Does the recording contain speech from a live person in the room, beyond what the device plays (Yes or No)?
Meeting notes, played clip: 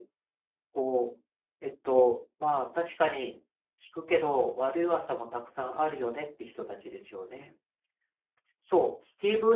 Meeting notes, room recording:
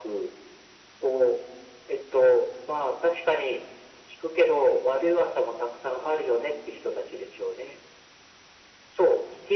No